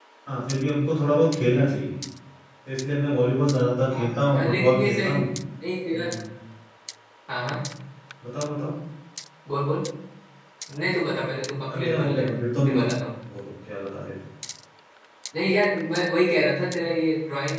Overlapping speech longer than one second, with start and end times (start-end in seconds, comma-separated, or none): 3.9-5.2